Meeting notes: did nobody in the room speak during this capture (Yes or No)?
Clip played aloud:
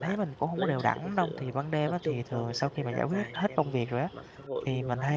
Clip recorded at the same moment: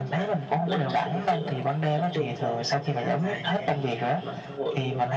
Yes